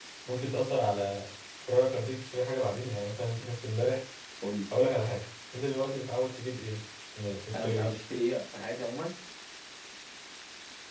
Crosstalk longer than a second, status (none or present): none